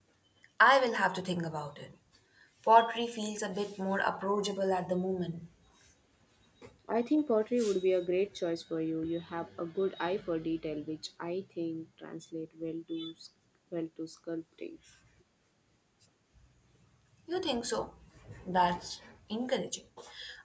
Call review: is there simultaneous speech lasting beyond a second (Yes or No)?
No